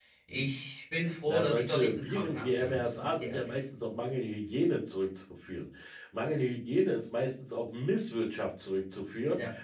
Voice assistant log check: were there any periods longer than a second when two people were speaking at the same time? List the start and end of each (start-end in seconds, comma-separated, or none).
1.3-3.5